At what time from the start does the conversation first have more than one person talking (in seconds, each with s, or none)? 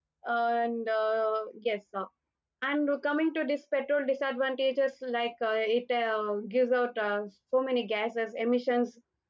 none